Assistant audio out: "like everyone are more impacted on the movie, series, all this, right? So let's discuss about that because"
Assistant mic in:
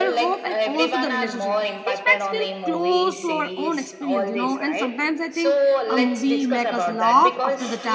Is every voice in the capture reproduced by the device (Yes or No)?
No